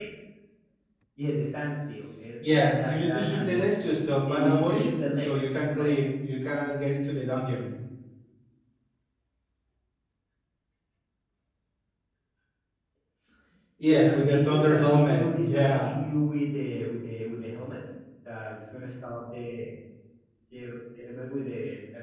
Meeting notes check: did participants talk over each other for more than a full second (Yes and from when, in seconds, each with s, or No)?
Yes, from 2.4 s